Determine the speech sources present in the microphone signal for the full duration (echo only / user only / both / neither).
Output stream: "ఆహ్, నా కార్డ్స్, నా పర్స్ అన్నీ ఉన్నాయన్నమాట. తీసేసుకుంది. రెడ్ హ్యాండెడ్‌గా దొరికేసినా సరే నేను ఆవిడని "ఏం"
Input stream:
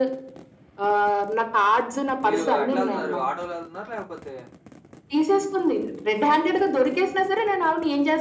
both